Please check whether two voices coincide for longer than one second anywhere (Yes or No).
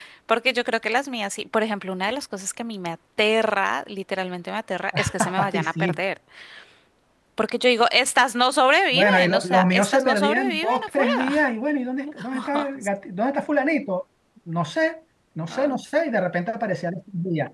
Yes